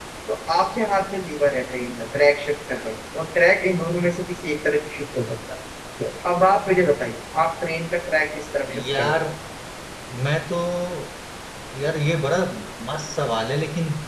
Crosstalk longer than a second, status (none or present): none